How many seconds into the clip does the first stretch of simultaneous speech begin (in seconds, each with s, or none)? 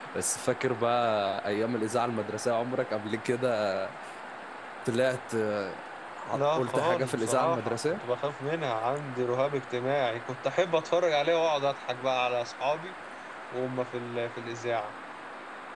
6.3 s